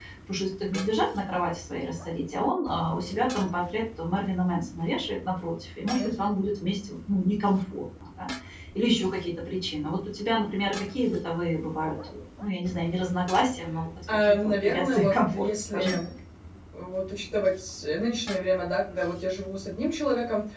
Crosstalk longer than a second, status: present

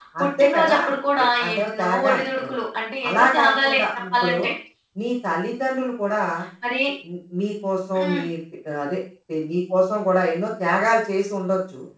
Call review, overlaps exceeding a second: present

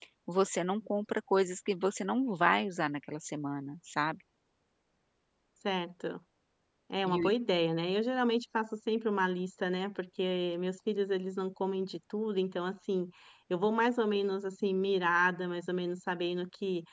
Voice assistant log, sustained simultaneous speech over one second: none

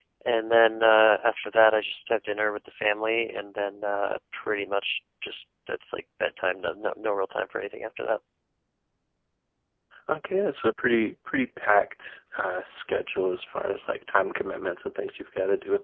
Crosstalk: none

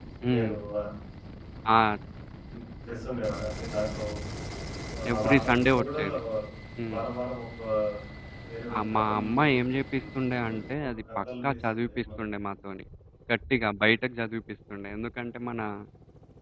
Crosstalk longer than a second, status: present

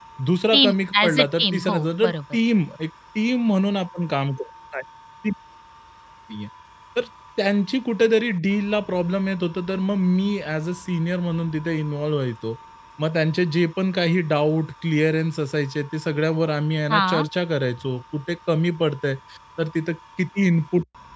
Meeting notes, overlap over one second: present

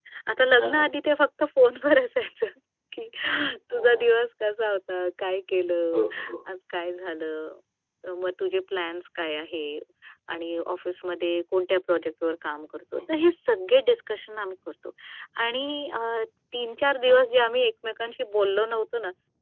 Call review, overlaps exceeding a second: none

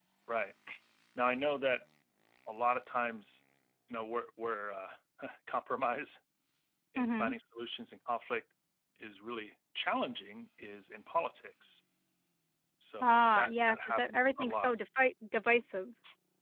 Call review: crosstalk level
present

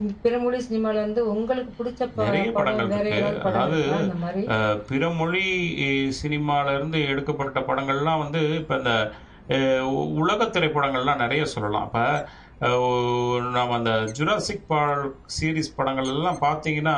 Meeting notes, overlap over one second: present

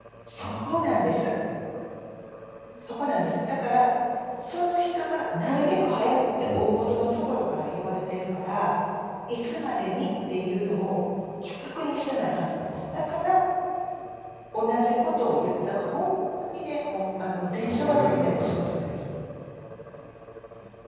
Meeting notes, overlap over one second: present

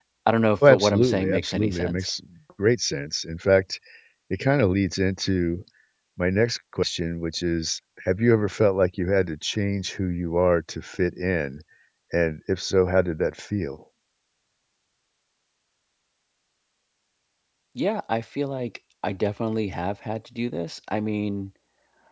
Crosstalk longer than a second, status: present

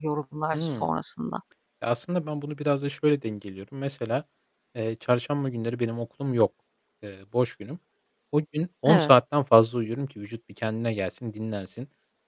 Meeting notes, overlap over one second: none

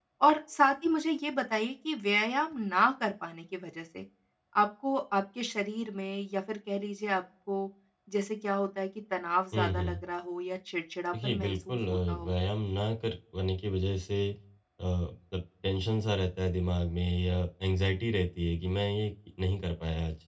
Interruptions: present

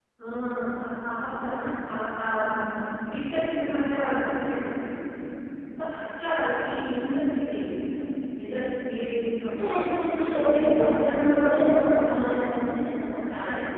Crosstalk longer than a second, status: present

